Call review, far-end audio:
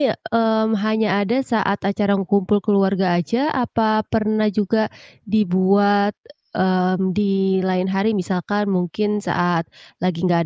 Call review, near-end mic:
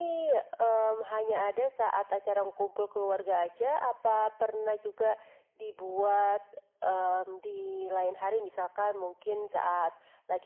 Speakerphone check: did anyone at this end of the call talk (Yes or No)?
No